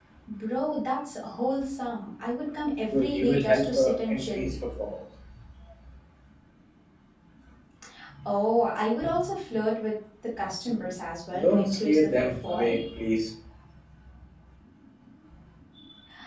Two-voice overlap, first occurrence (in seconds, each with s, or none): 2.9 s